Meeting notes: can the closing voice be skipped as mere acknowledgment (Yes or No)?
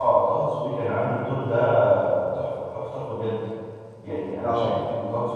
Yes